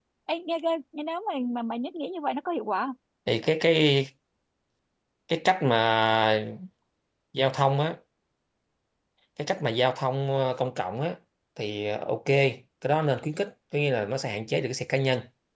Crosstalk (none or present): none